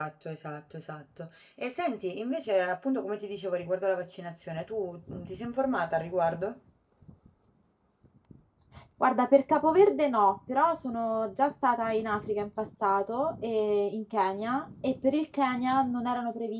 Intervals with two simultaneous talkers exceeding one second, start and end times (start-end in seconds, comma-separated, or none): none